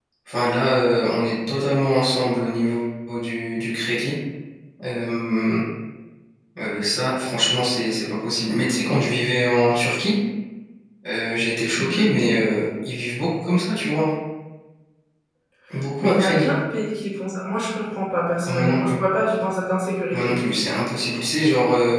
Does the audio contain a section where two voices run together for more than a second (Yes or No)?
No